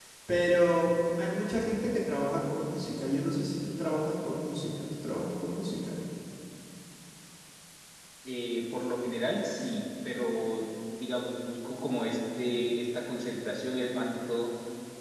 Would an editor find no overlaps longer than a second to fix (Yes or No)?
Yes